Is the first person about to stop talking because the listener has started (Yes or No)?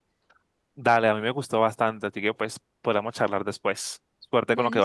Yes